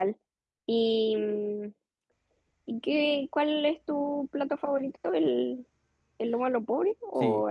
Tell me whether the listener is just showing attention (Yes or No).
No